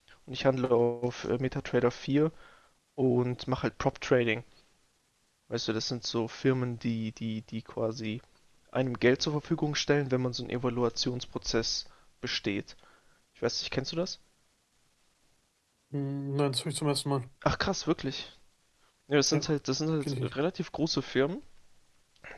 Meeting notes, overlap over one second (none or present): none